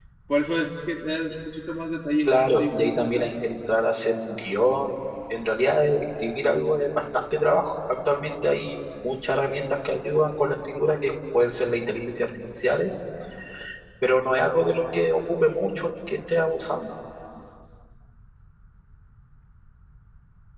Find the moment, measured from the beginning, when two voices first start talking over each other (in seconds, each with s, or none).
2.2 s